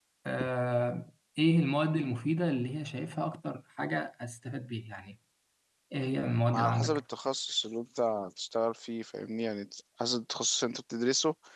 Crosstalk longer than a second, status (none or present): none